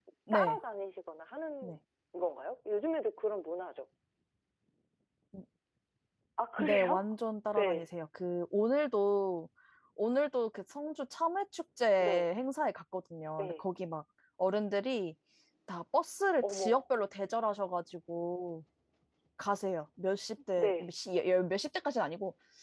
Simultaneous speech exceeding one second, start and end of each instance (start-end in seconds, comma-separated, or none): none